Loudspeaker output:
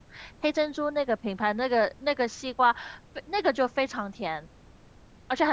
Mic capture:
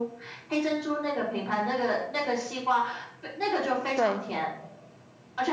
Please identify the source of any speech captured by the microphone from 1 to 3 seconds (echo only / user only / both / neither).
echo only